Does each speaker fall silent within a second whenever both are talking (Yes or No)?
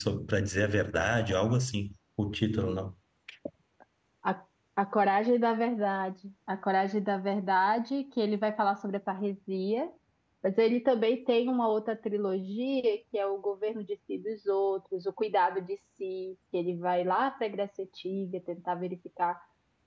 Yes